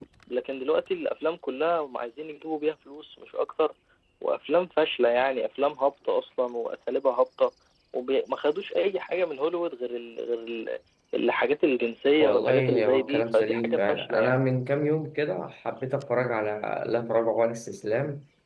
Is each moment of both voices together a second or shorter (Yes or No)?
No